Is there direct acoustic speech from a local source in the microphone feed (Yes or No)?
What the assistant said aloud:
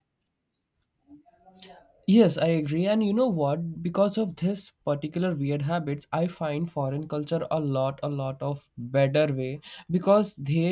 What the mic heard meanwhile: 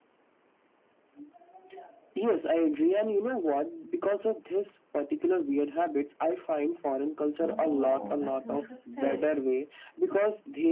Yes